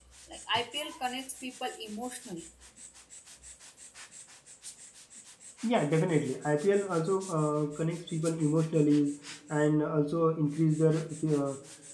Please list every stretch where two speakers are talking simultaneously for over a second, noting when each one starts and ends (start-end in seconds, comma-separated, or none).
none